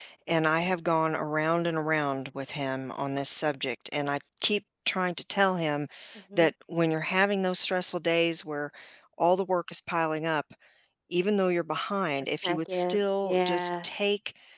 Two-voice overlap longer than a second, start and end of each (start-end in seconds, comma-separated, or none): 12.3-13.9